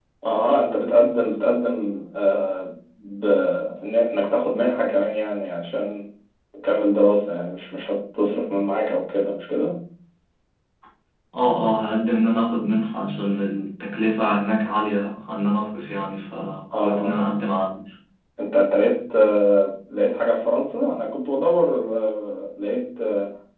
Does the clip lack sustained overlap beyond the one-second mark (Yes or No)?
Yes